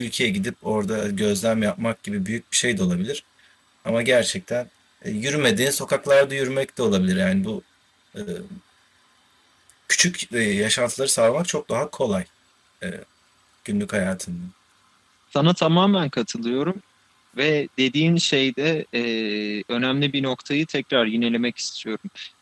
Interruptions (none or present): none